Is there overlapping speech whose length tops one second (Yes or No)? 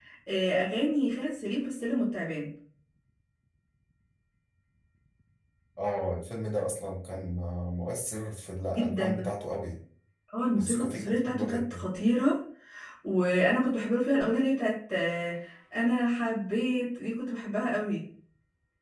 Yes